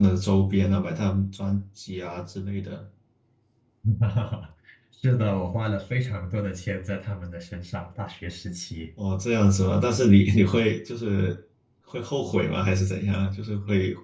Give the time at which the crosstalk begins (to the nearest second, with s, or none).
none